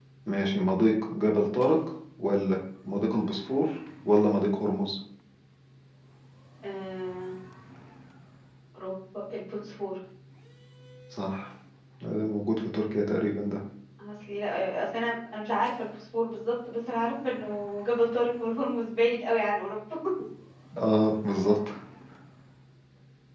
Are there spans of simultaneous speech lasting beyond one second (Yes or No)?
No